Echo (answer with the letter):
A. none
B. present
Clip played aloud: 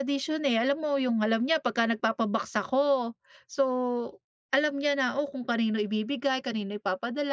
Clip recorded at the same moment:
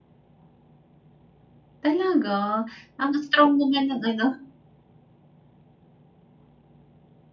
A